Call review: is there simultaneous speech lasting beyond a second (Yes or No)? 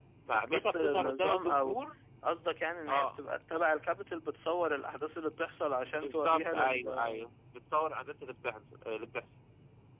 Yes